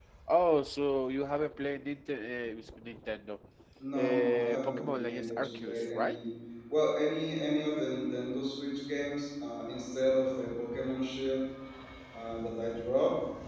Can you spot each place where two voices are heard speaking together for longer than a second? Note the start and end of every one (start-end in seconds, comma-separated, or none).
4.0-6.2